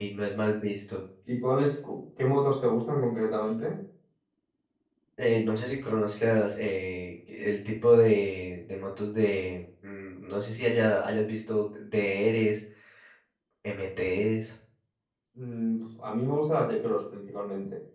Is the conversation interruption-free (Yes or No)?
Yes